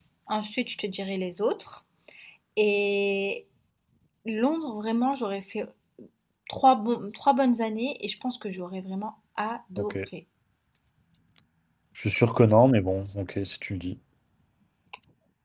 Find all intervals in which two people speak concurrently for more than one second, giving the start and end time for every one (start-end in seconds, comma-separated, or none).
none